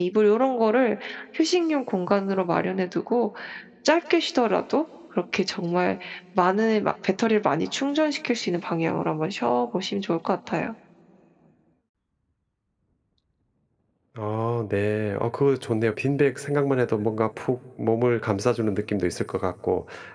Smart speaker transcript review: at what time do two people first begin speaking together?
none

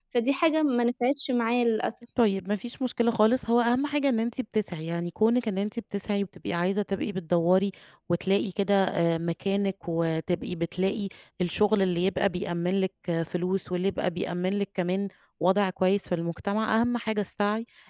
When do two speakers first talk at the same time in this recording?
none

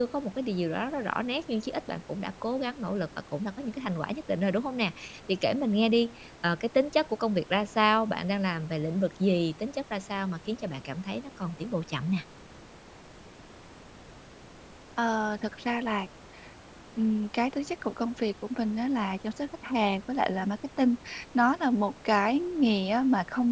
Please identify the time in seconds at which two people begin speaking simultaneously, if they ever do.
none

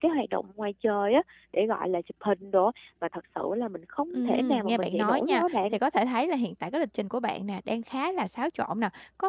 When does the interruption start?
4.1 s

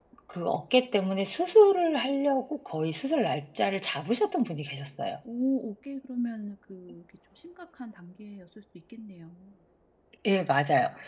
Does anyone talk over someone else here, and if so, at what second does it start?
none

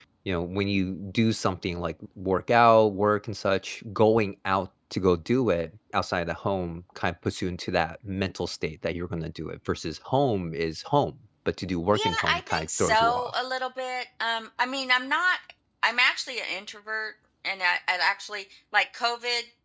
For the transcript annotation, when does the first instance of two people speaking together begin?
11.9 s

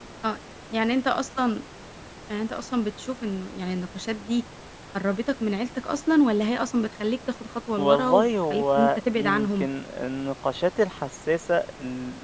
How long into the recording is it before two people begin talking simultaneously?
7.8 s

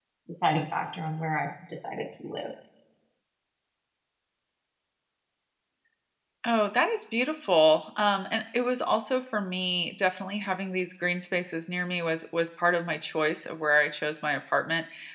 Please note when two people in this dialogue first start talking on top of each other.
none

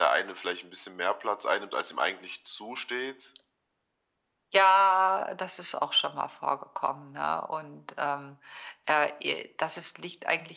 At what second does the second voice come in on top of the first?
none

